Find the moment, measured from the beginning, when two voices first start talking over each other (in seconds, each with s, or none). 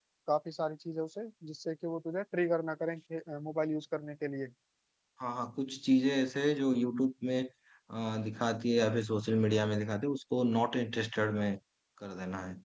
none